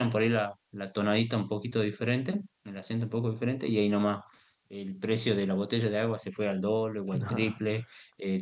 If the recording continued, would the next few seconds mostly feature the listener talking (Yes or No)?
No